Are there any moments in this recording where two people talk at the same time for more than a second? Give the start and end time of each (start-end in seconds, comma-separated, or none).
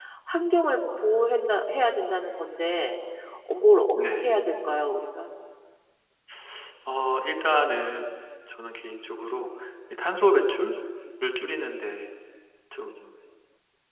none